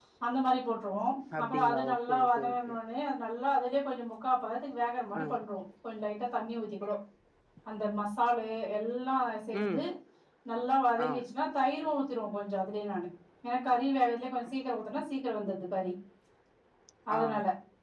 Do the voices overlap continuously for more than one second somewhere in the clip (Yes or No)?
Yes